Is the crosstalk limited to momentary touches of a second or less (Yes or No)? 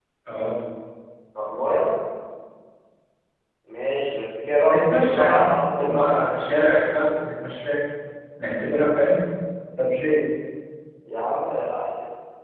No